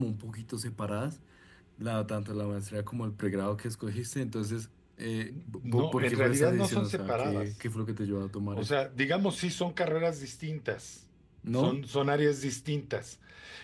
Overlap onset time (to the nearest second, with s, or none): 5 s